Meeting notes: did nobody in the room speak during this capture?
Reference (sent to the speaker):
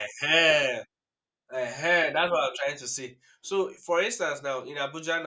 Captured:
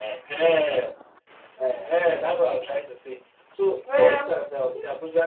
No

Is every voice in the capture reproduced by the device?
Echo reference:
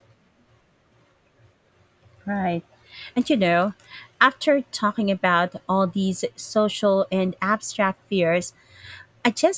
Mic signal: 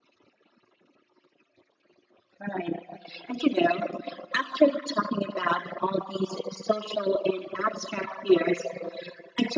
Yes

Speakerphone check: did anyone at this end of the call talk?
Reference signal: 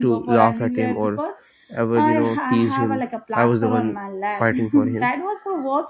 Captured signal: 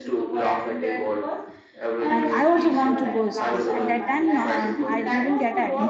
Yes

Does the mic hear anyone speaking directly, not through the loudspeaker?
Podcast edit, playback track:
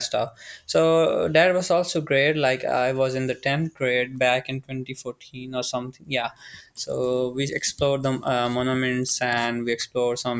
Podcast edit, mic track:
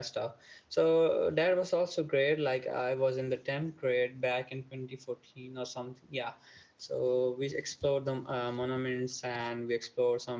No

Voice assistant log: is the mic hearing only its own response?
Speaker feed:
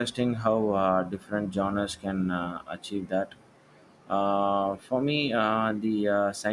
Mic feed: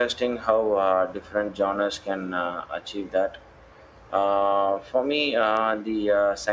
Yes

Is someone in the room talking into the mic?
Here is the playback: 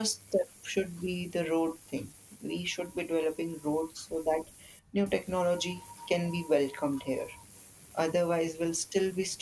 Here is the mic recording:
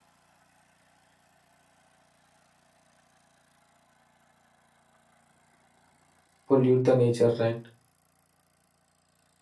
Yes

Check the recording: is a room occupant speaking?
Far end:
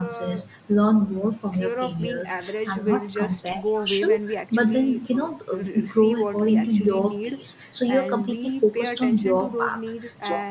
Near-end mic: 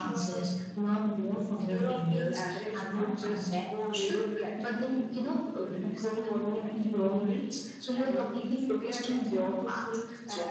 Yes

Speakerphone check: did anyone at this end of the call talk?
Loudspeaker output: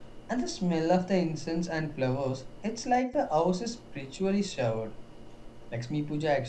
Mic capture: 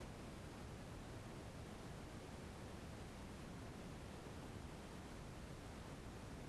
No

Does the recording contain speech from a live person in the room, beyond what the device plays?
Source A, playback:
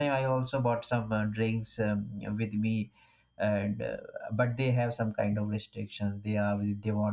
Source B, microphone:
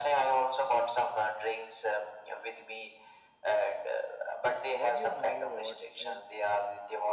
Yes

